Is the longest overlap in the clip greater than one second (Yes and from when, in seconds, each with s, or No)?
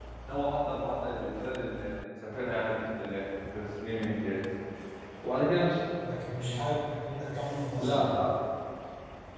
No